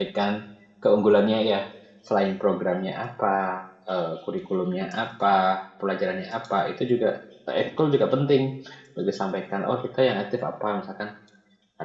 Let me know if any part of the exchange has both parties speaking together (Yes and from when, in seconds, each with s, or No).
No